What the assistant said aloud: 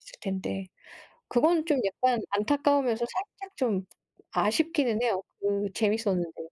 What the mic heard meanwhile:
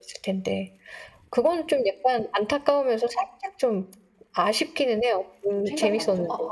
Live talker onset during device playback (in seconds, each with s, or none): 5.5 s